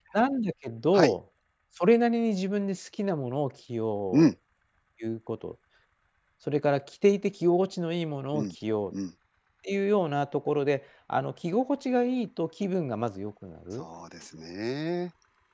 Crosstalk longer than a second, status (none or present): none